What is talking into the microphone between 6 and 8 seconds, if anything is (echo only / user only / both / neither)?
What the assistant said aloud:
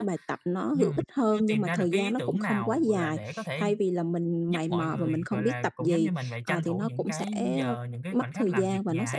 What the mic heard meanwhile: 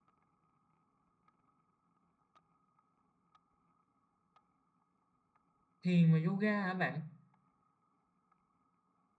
user only